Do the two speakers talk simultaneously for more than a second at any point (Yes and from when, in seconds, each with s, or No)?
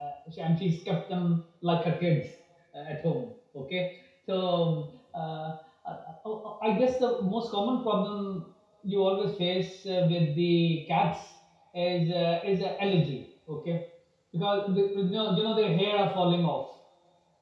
No